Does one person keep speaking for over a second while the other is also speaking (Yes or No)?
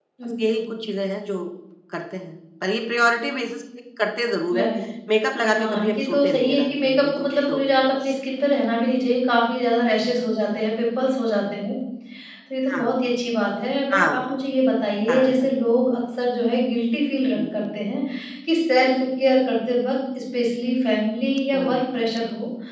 Yes